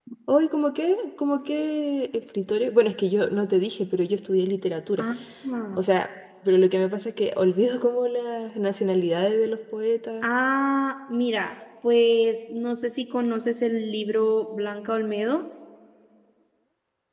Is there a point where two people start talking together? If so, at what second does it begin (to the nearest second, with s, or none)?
none